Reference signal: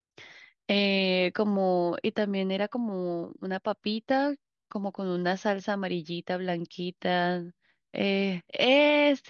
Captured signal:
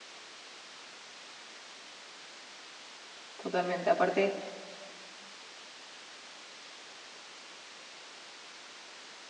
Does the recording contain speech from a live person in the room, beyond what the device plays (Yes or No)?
Yes